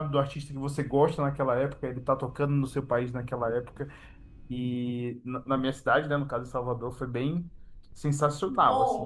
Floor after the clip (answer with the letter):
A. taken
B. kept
A